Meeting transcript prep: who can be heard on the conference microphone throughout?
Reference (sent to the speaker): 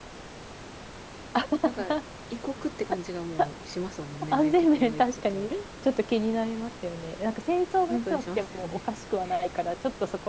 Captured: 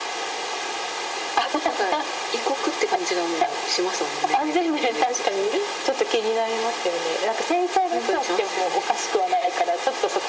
echo only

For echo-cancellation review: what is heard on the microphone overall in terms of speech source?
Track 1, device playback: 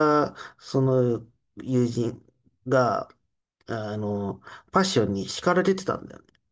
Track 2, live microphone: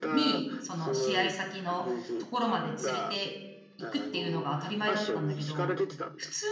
both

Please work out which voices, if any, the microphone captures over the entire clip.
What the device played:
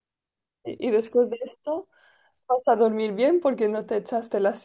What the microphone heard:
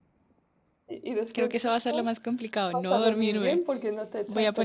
both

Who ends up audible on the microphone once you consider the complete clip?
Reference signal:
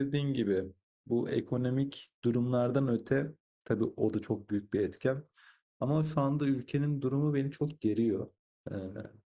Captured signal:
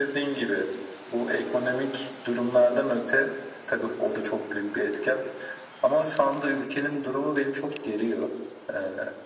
echo only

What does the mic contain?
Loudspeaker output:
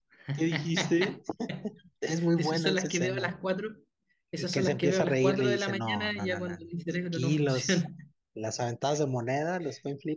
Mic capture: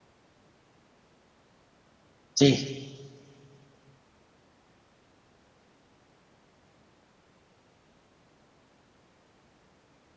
user only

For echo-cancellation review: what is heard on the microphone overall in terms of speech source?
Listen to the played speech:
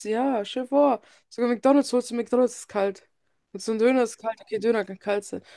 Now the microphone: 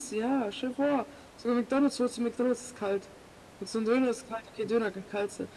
echo only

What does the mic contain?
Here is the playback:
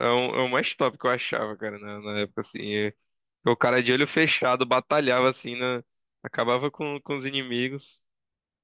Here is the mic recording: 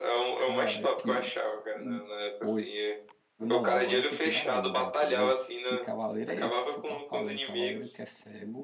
both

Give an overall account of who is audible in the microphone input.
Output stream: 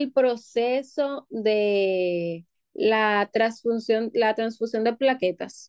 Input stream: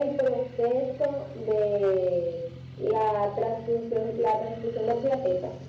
echo only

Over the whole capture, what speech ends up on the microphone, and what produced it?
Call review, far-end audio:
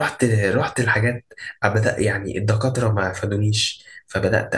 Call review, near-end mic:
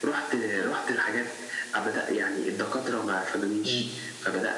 both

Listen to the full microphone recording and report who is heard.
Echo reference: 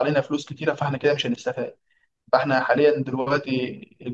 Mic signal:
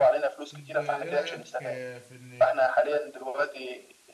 both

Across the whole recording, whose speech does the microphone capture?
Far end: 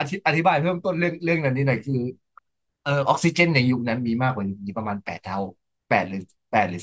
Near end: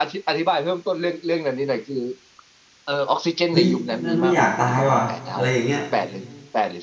both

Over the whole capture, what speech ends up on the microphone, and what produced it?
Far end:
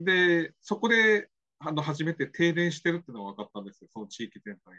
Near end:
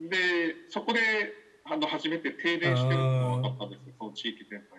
both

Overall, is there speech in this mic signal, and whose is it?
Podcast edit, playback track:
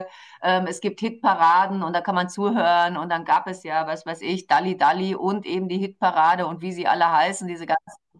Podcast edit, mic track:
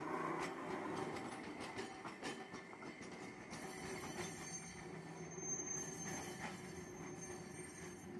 neither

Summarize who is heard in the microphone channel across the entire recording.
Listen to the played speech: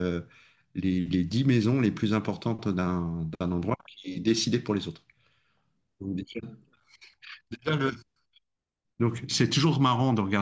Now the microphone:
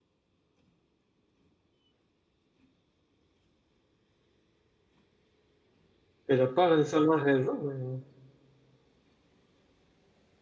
user only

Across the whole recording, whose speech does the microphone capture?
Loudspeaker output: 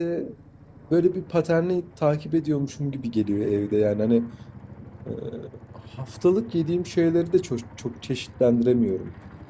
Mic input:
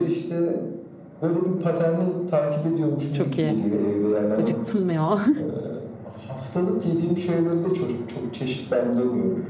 both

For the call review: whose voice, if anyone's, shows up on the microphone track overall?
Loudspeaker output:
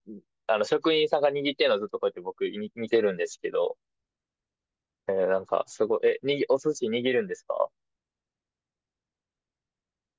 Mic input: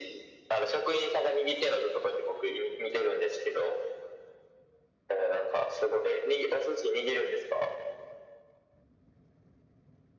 echo only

